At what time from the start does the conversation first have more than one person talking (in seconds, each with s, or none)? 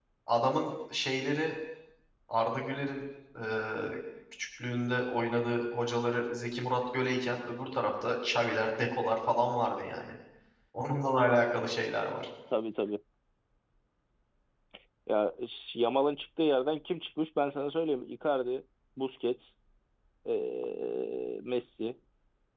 none